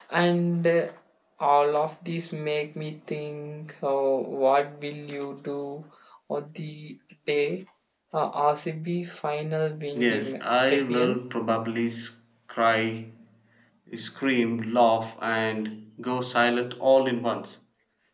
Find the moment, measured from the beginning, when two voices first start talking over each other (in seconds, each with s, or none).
9.9 s